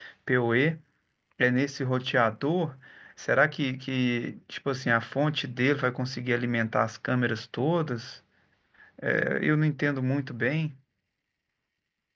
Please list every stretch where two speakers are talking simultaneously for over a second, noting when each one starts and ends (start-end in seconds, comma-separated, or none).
none